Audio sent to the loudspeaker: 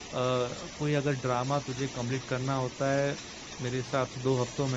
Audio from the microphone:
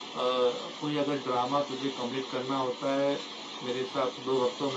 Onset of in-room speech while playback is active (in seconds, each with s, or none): none